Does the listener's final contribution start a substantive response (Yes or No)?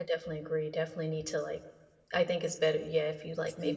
No